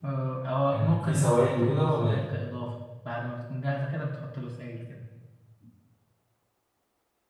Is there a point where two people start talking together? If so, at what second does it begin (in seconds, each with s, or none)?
0.7 s